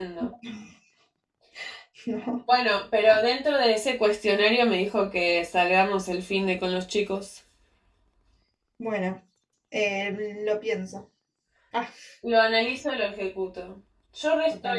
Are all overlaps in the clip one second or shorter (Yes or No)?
Yes